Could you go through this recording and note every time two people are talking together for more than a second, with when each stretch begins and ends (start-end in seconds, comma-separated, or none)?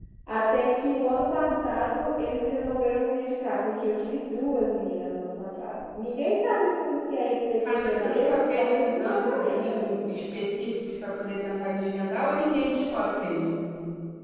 7.6-10.0